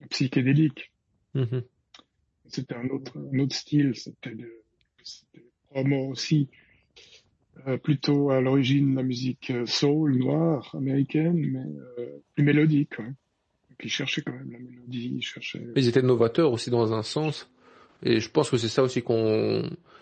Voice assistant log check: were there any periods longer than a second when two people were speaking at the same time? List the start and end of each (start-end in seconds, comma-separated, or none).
none